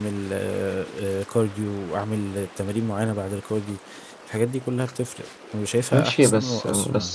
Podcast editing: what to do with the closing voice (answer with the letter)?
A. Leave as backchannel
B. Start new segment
B